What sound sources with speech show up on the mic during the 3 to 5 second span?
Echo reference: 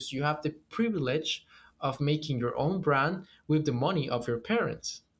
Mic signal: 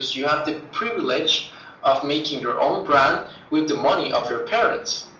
echo only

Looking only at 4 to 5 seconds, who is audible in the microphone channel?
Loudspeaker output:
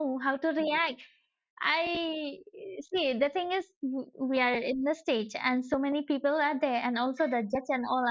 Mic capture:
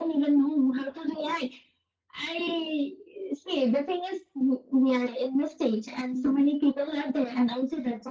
echo only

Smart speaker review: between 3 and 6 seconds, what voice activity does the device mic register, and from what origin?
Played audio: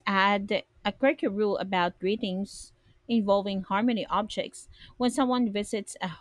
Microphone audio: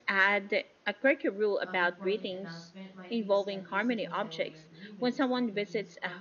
both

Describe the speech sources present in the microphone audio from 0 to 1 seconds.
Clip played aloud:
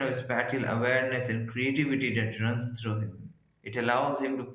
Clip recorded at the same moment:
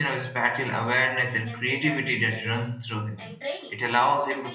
both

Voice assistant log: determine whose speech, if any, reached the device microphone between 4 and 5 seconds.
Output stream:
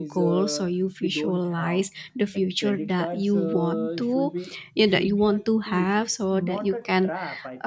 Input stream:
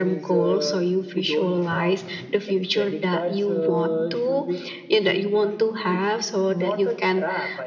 echo only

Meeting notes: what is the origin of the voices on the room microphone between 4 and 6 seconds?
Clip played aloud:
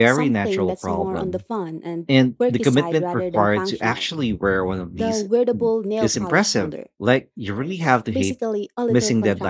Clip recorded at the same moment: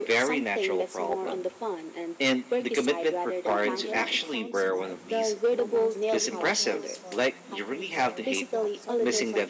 both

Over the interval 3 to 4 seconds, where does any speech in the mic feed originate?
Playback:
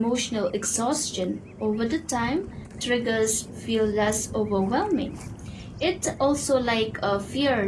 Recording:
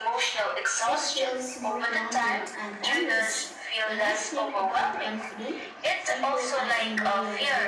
both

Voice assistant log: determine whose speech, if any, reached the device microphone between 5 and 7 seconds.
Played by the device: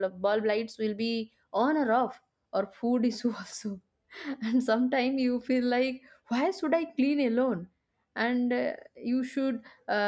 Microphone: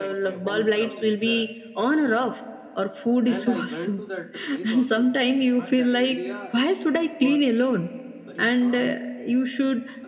both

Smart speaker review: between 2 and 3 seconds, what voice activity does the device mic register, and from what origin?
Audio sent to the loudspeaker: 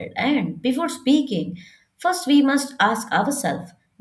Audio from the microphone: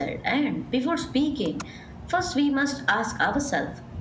echo only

